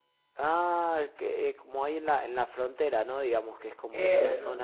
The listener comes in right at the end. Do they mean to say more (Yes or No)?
No